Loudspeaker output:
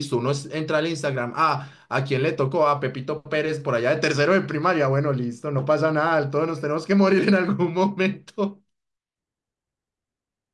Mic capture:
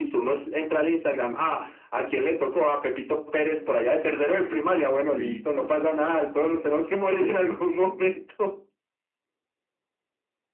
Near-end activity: present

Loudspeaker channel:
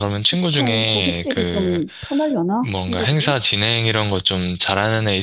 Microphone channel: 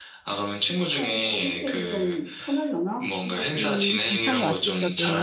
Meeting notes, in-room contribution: present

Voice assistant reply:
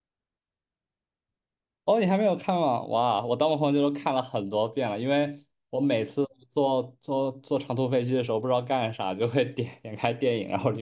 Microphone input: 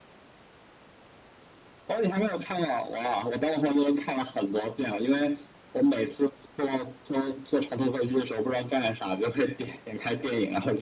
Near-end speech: none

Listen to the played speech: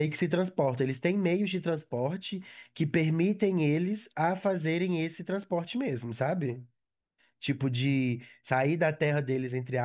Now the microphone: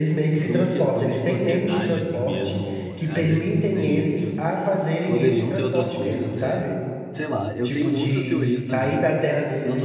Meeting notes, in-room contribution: present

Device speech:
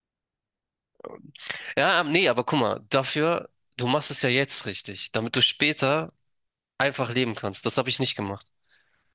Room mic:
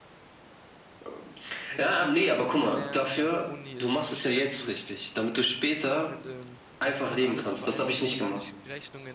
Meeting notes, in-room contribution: present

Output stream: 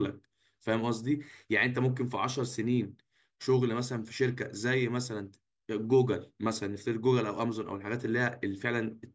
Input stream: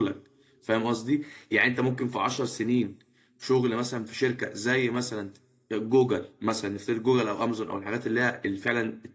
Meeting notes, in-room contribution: none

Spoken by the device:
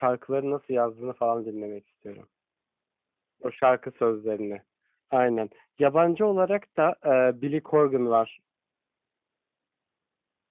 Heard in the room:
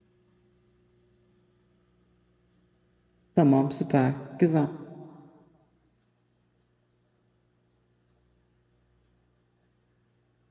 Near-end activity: present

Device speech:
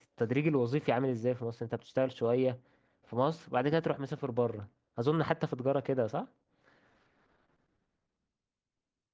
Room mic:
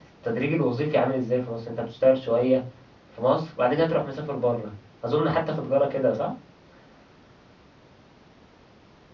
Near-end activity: none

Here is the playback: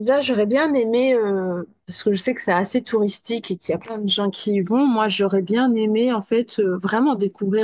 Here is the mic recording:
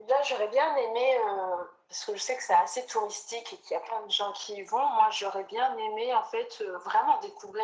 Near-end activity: none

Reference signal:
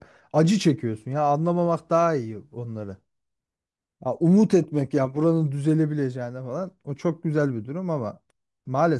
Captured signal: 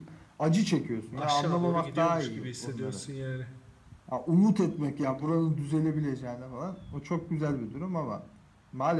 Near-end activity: present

